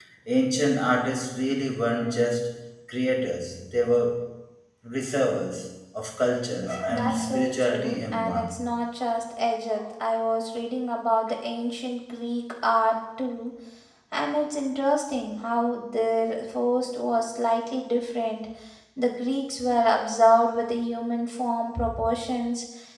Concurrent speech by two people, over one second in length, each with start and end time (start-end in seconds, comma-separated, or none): 6.9-8.6